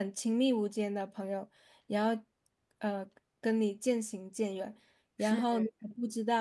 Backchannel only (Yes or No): Yes